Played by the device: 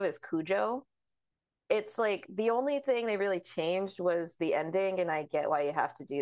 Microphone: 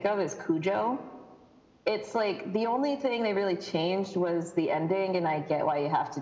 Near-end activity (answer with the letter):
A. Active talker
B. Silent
B